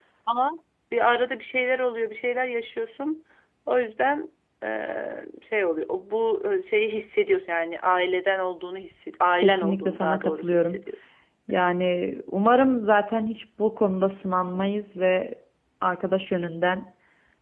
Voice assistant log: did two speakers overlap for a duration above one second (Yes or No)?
Yes